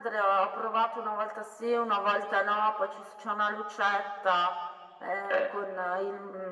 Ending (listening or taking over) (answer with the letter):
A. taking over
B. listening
B